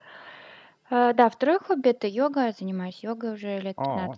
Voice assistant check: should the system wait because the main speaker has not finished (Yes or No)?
Yes